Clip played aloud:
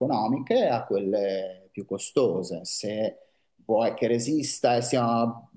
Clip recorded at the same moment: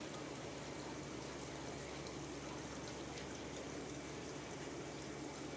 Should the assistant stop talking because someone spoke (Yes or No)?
No